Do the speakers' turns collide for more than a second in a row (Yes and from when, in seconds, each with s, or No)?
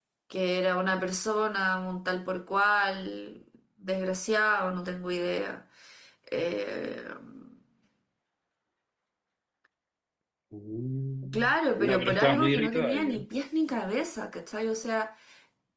Yes, from 11.3 s